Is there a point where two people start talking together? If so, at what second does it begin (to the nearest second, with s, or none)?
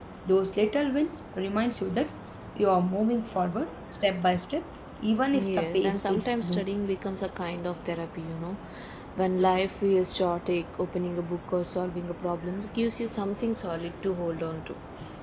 5 s